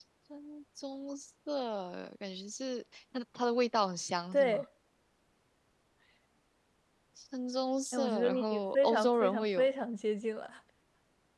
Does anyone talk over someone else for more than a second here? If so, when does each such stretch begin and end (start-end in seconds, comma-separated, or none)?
7.9-9.7